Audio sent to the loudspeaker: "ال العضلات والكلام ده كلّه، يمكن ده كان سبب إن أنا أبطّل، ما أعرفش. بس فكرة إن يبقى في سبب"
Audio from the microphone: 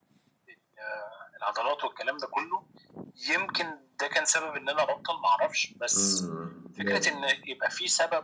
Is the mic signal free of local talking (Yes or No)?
No